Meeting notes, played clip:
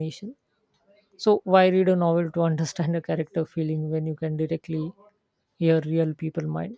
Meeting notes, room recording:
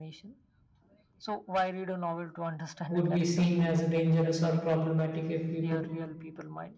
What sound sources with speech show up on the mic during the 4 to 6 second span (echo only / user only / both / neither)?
both